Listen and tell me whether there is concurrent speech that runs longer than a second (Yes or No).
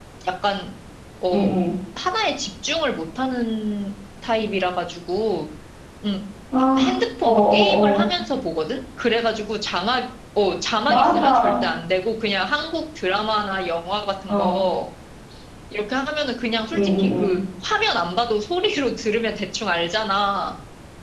Yes